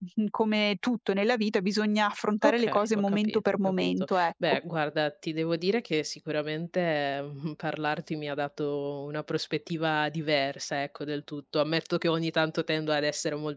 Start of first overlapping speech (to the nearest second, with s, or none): 2 s